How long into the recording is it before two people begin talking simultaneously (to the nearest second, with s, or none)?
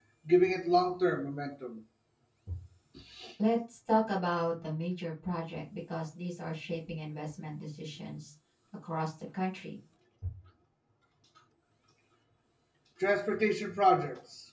none